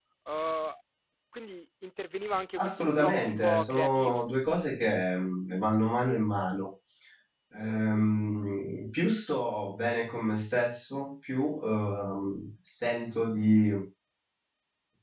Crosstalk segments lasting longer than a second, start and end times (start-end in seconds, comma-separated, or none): 2.6-4.3